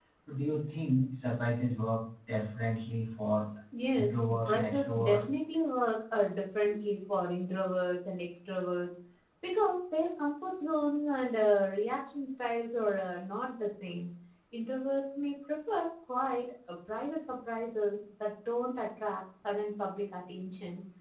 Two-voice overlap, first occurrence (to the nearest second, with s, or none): 4 s